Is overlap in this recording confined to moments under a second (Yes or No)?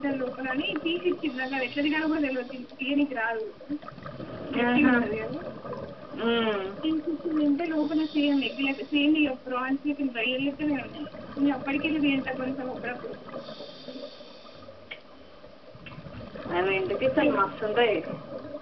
Yes